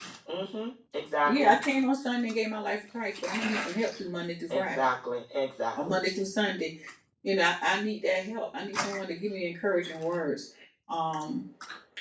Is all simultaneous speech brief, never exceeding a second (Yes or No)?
Yes